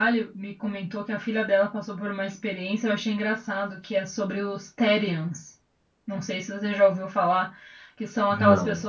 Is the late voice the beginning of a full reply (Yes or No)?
No